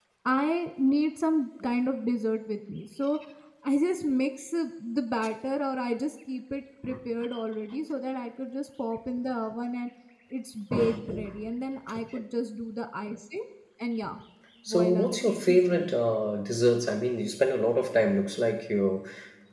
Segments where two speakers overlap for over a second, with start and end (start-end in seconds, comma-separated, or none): 14.7-15.9